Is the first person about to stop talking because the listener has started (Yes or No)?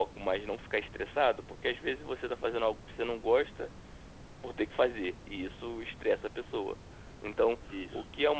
No